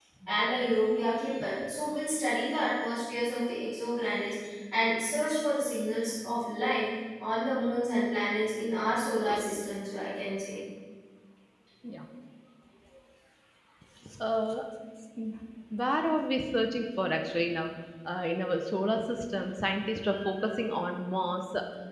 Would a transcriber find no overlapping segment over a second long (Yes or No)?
Yes